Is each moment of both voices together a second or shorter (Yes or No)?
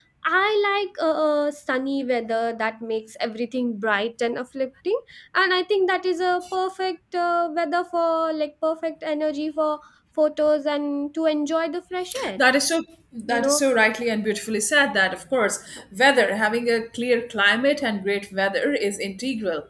Yes